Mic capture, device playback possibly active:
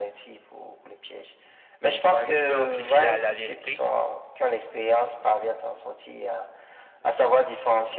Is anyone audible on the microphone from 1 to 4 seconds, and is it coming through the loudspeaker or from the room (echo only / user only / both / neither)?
both